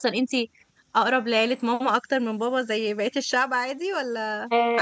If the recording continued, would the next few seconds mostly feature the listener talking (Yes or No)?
Yes